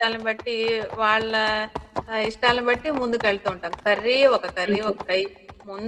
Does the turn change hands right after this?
No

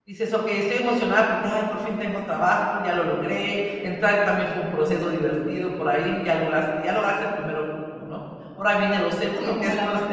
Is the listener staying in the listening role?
No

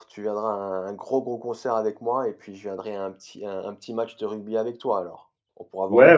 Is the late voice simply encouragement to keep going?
No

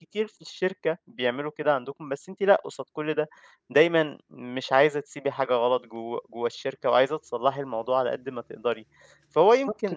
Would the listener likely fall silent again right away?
Yes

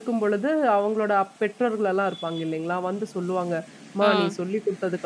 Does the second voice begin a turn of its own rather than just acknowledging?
No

